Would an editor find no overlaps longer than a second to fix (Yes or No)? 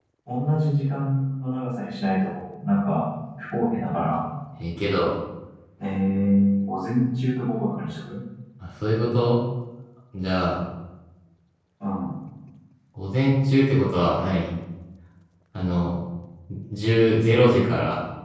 Yes